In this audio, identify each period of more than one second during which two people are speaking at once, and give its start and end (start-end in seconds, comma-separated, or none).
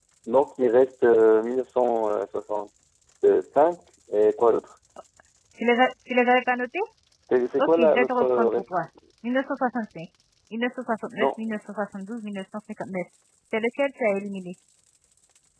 7.6-8.9